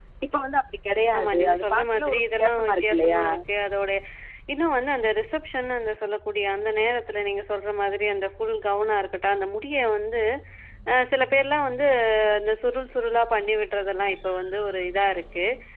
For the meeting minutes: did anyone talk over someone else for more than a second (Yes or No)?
Yes